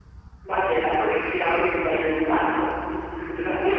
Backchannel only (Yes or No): No